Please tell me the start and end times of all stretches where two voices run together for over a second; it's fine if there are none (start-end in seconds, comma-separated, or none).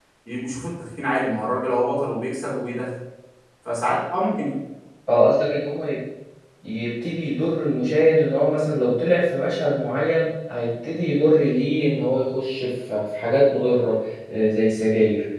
none